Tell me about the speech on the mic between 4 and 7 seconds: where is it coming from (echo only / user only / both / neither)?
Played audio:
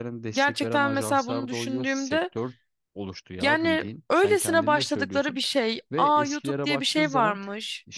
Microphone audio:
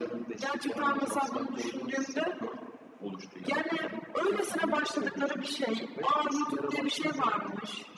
echo only